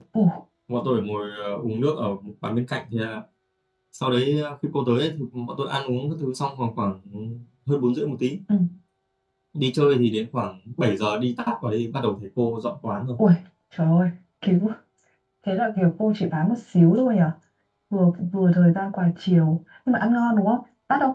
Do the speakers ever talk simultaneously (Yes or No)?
No